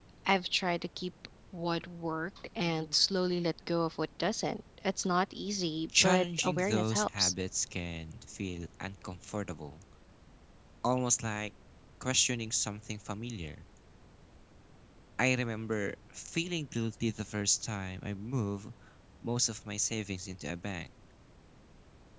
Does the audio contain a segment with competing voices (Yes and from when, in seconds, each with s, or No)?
Yes, from 5.9 s